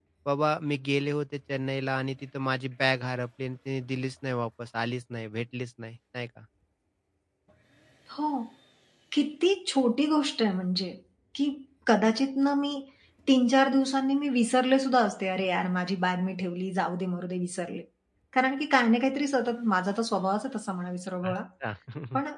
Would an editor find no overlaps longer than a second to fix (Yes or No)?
Yes